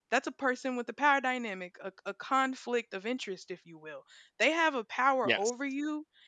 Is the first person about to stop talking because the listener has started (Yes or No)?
No